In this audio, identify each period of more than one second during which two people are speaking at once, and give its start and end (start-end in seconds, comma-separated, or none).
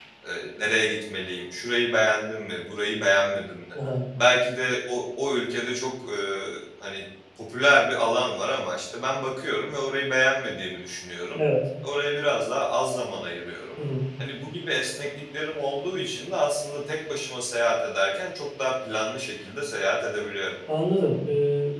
none